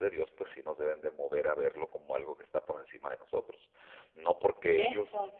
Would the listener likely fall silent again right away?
Yes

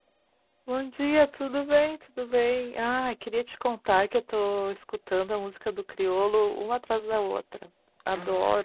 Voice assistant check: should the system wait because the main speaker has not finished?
No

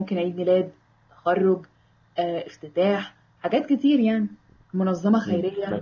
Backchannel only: No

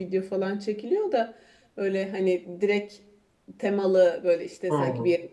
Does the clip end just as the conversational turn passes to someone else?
No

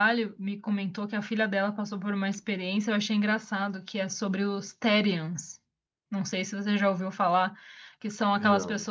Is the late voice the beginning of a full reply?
No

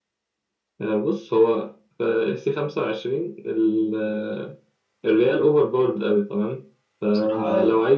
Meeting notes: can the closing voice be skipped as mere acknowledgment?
Yes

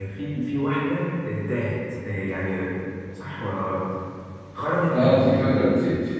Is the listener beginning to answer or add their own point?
Yes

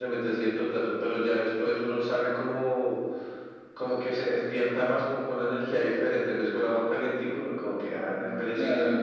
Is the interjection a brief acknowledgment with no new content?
No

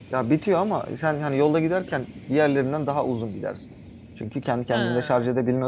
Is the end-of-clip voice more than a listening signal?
No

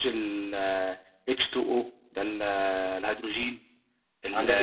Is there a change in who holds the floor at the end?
Yes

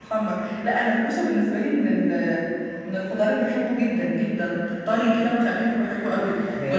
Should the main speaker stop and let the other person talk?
No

